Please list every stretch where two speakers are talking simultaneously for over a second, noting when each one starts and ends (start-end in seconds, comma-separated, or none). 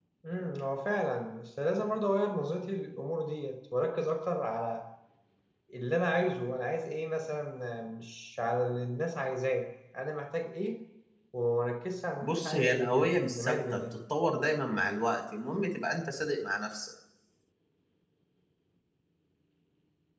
12.2-13.8